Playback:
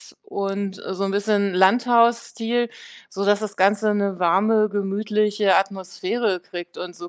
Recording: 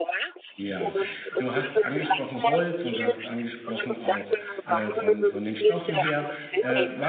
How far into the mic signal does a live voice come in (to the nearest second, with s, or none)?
1 s